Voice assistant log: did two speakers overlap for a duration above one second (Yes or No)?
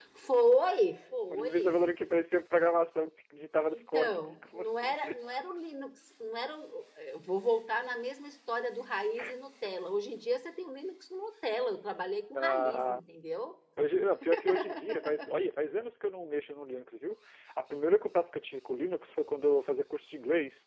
Yes